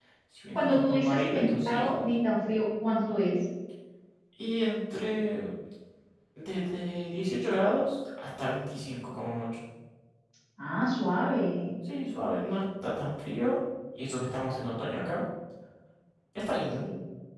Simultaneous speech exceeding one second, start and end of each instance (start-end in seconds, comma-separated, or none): 0.5-2.1